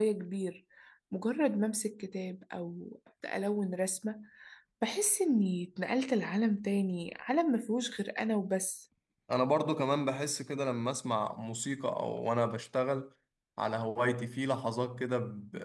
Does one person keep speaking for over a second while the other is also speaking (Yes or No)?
No